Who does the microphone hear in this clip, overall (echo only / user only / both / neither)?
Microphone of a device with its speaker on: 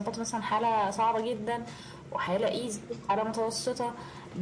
echo only